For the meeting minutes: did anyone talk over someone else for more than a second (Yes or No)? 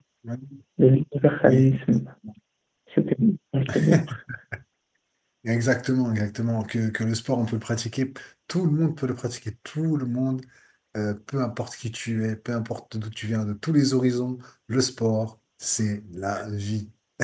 No